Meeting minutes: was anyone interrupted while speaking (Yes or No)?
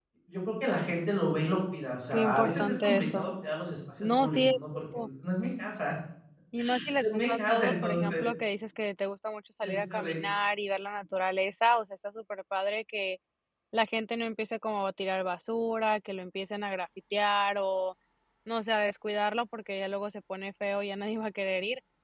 Yes